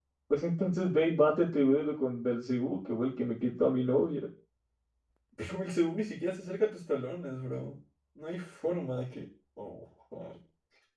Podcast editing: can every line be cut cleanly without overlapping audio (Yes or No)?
Yes